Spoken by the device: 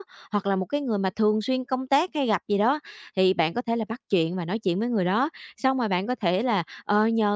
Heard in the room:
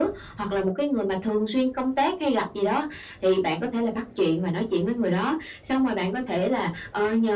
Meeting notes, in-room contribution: none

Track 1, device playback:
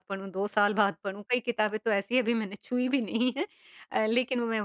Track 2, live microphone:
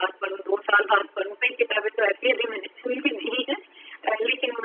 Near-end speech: none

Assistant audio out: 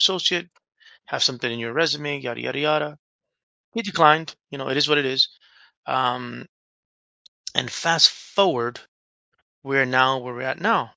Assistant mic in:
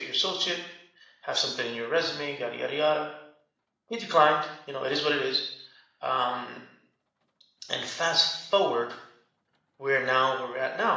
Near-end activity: none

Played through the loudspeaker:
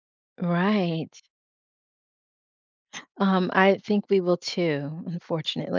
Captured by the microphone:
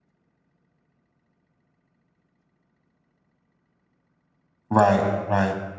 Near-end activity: present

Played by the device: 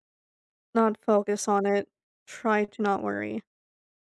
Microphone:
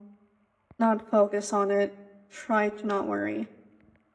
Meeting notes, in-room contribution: none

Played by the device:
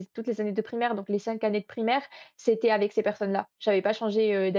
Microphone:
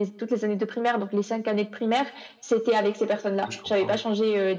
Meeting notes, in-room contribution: present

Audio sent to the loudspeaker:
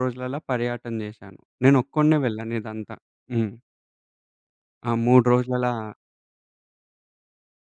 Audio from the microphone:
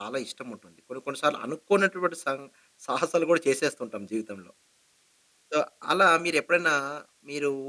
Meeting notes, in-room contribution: present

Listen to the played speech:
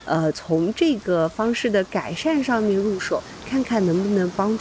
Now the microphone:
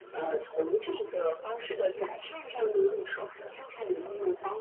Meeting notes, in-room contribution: none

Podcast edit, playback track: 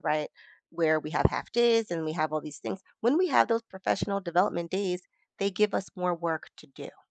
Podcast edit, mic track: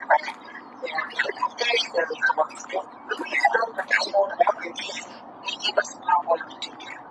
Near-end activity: none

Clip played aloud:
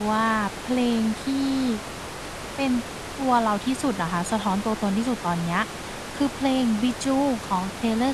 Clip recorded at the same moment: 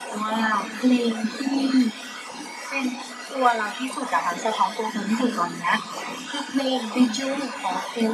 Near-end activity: none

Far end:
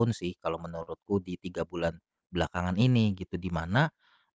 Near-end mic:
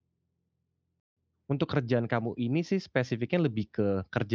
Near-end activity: present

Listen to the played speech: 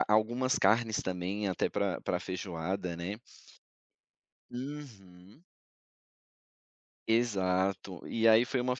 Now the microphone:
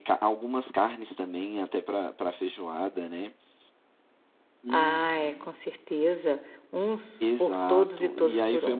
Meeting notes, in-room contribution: present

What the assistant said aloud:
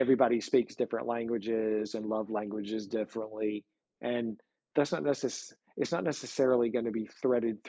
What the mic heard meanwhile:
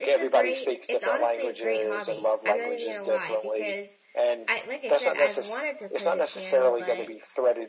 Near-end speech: present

